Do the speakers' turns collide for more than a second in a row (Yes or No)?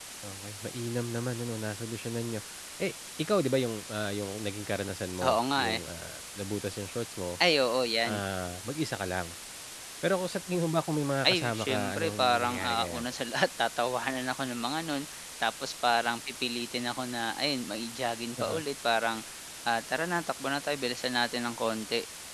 Yes